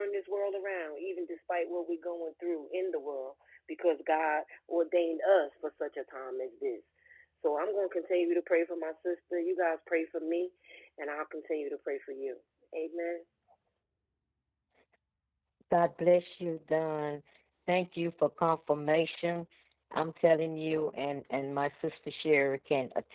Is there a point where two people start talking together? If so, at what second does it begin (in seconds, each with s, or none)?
none